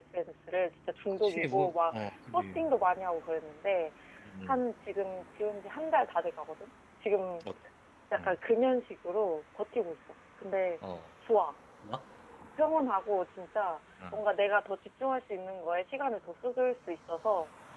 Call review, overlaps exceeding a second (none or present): present